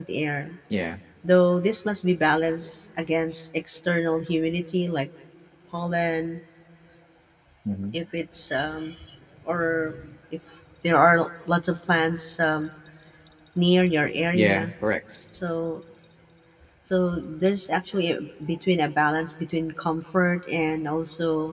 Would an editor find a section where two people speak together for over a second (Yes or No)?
No